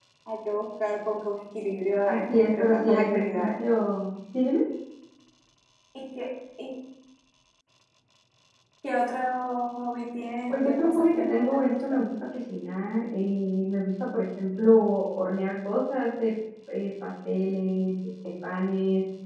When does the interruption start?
2.1 s

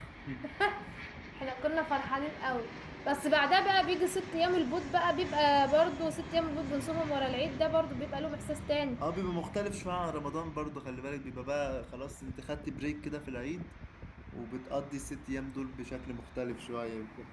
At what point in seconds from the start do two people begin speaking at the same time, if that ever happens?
none

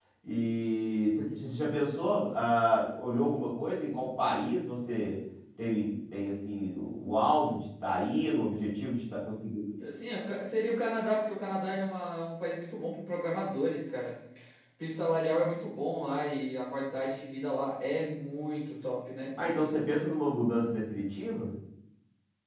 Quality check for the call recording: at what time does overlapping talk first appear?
none

